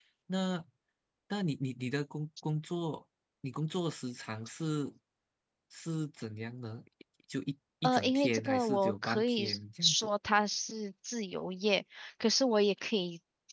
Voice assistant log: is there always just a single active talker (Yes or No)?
No